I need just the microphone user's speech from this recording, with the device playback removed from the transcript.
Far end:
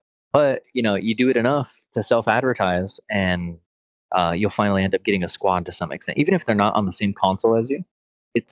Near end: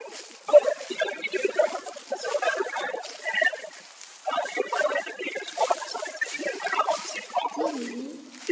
Mhm.

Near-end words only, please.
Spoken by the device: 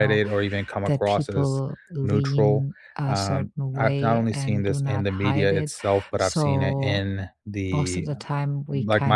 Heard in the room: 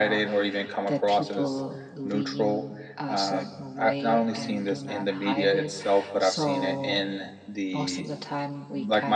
none

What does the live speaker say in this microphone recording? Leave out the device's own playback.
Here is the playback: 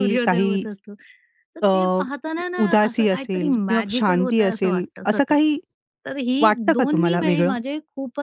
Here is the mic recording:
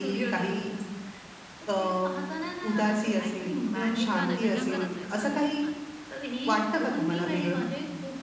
सुनसान आहे ना, जंगलच आहे, तर ते असणार.

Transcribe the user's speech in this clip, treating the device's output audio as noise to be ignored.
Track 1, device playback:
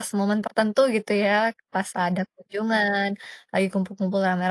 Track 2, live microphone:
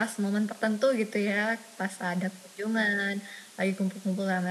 none

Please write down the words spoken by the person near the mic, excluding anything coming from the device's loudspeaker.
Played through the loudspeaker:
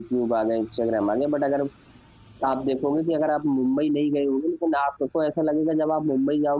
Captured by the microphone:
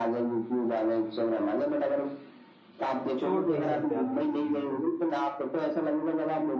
छोड़ नहीं सकते आप किसी चीज़ को

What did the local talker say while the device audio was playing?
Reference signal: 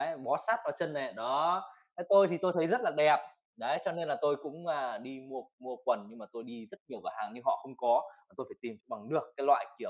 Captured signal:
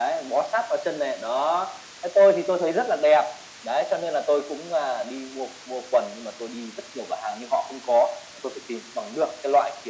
none

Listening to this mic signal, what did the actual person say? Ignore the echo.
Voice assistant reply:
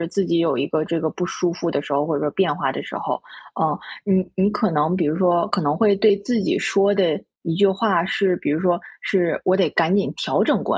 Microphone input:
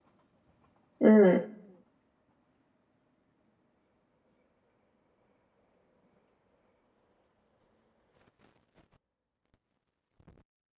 嗯。

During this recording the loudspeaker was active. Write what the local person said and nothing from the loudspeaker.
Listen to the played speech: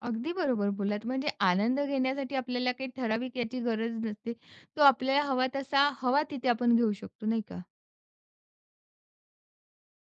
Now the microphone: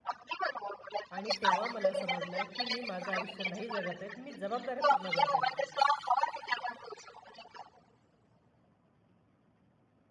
आणि तेव्हा मला समजलं, की मी माझं आयुष्य नाही जगत आहेत, मी जबाबदाऱ्या पूर्ण करत आहेत.

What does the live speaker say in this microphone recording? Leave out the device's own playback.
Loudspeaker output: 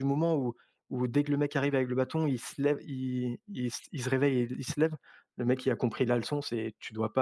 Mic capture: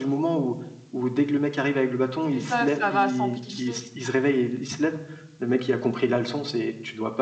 c'est ça, ça va s'amplifier.

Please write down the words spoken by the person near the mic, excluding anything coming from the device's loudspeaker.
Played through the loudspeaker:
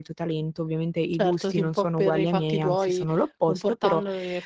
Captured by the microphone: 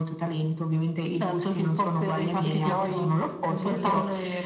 che si ha un po' del

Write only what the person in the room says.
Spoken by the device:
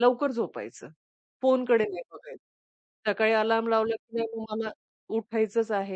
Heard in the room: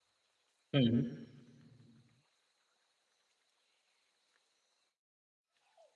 हं,

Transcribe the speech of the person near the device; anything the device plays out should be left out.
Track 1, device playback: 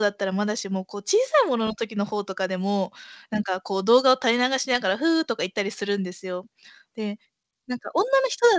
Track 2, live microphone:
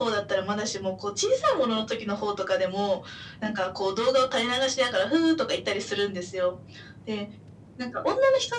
none

